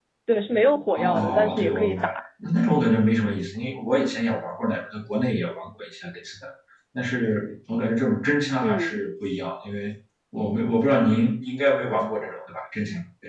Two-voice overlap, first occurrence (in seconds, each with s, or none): 1.0 s